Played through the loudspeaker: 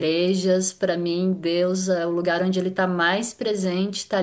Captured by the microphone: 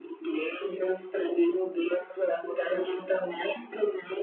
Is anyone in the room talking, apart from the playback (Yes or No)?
No